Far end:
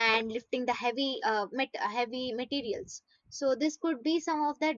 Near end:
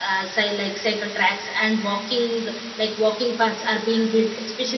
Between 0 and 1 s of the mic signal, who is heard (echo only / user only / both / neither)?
user only